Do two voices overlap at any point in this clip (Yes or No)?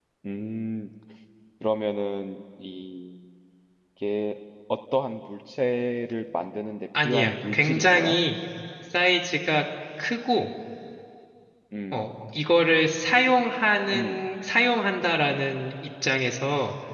Yes